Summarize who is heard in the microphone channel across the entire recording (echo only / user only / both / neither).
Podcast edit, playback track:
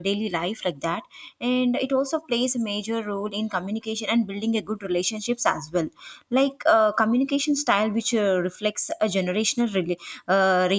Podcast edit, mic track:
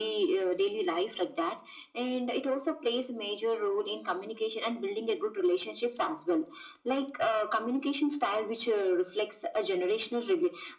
echo only